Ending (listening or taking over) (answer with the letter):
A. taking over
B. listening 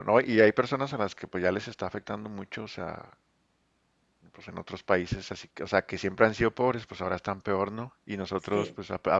B